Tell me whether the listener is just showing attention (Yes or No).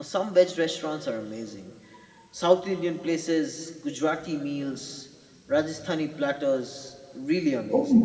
No